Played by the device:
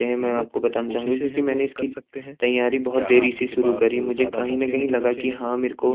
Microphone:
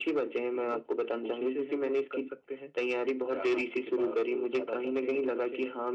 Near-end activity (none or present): none